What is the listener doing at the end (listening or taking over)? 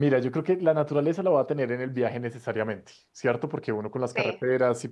listening